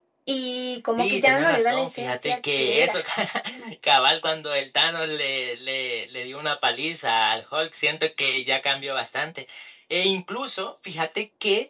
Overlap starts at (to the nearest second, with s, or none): 1 s